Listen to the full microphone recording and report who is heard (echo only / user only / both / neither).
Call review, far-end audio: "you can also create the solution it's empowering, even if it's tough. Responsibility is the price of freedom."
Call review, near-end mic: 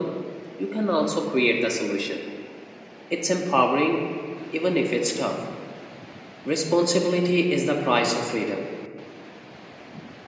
echo only